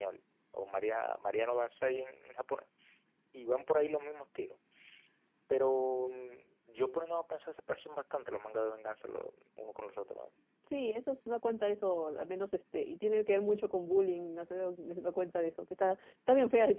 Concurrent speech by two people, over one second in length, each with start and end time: none

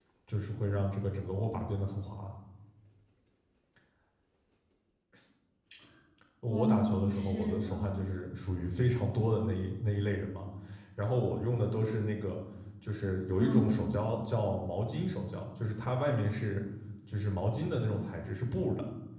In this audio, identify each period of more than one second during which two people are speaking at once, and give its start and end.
6.5-7.9

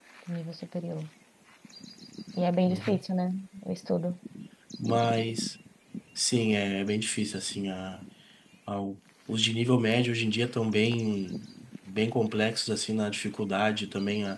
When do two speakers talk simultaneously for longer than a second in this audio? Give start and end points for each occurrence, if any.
none

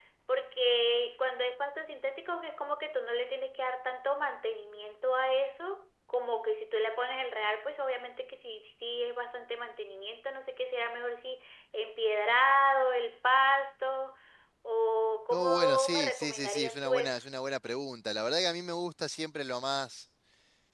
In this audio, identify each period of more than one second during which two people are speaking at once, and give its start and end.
15.3-17.2

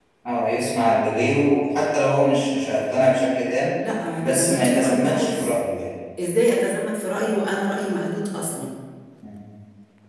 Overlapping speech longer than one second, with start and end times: 4.2-5.6

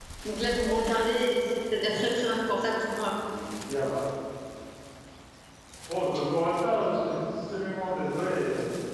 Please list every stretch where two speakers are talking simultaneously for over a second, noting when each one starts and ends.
none

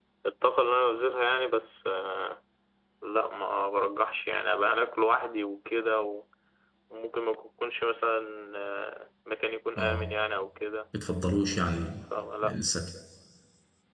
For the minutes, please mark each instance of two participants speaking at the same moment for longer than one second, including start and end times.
none

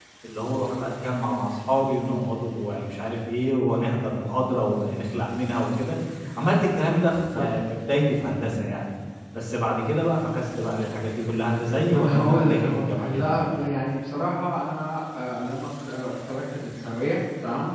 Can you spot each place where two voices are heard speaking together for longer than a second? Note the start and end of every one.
11.9-13.3

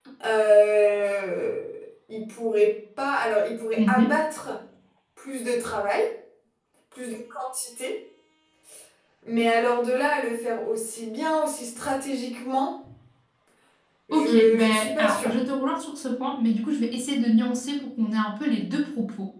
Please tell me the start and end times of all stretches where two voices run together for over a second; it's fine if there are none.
14.1-15.3

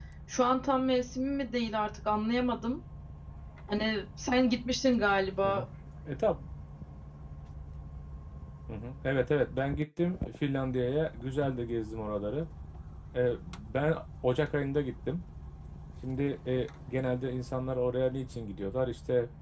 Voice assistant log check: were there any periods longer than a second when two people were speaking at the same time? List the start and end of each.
none

